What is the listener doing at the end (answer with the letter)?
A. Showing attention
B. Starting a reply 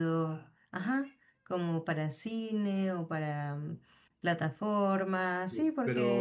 B